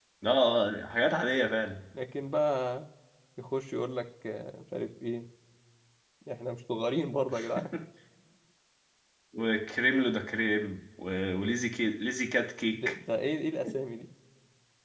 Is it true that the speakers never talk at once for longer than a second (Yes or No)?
Yes